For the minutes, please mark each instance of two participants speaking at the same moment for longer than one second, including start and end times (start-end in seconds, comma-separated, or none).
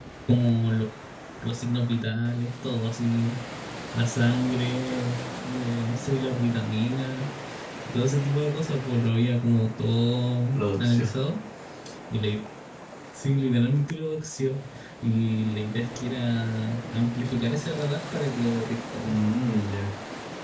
none